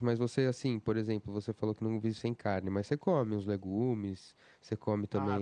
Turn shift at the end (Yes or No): Yes